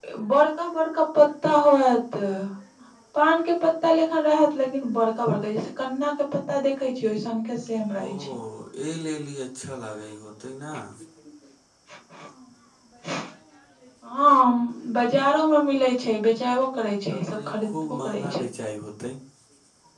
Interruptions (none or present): present